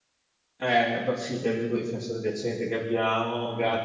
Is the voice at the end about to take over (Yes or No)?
No